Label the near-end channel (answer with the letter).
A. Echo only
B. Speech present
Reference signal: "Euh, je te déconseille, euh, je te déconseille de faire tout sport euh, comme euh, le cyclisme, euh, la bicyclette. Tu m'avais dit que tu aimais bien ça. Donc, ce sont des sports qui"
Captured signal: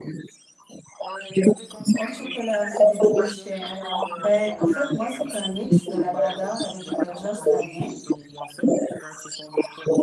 B